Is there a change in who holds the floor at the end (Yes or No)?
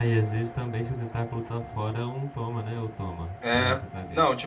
Yes